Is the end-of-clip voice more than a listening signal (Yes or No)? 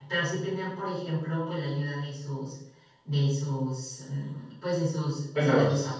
No